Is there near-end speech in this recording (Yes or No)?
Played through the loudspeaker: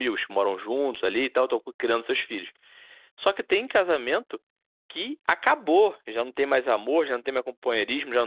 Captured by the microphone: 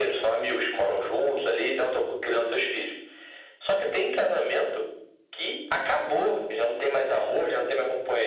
No